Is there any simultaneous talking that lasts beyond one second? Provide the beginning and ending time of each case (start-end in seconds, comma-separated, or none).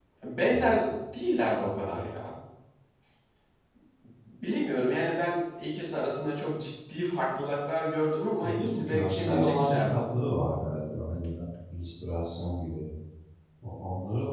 8.4-10.0